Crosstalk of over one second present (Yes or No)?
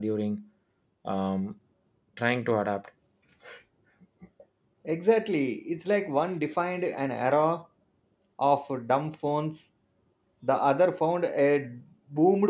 No